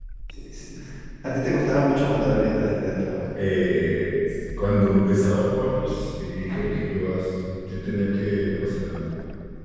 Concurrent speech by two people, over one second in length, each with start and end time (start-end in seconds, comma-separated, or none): none